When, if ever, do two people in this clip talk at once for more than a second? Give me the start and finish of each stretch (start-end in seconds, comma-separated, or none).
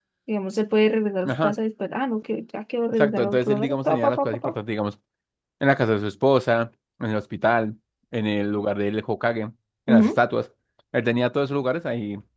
2.9-4.5